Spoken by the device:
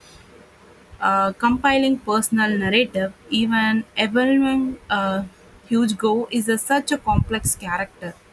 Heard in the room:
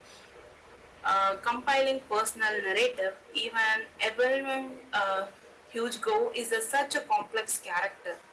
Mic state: echo only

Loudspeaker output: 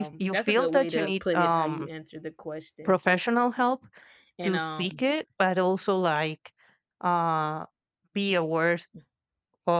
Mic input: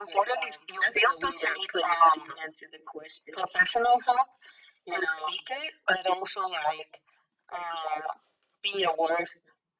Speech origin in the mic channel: echo only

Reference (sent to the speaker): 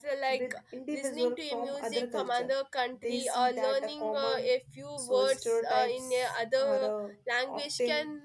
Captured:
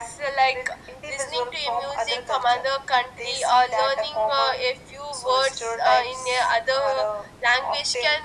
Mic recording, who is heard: echo only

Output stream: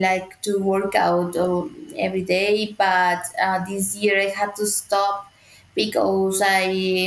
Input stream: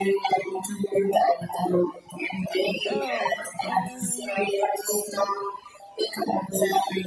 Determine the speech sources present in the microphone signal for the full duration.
both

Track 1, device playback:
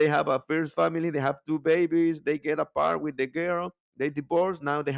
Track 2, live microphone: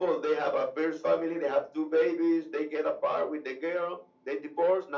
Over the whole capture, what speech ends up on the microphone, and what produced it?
echo only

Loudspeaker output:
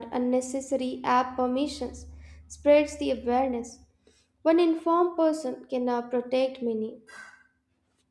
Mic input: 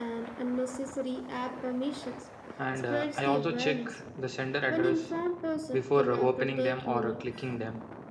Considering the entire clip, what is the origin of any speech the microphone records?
both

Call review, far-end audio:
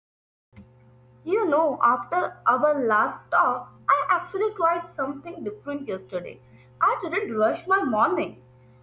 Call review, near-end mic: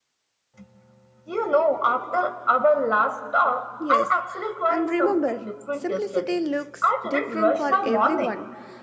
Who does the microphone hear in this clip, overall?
both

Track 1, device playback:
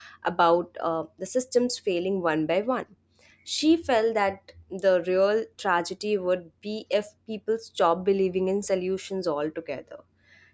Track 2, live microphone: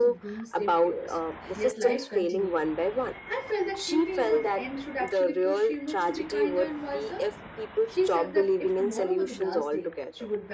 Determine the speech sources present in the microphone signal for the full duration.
both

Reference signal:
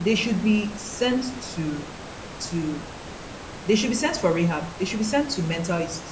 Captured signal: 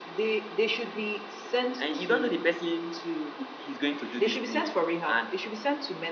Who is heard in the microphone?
both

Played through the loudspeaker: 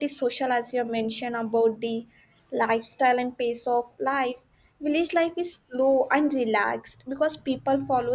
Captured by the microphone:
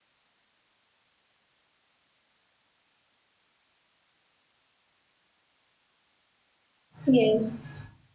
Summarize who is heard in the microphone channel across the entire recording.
user only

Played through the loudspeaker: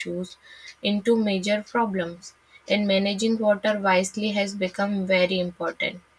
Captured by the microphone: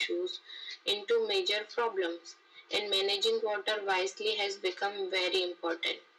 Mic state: echo only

